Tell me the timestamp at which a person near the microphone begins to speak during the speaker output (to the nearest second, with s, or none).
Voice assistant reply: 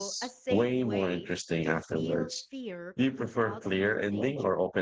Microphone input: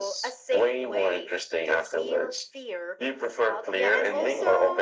4 s